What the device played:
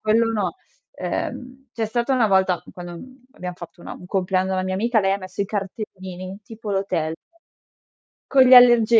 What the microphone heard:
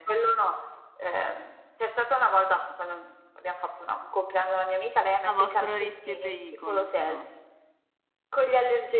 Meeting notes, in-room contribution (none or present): present